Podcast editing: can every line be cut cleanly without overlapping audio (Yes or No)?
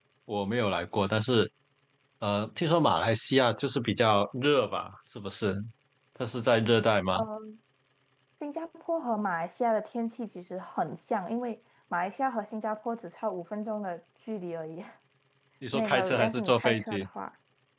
No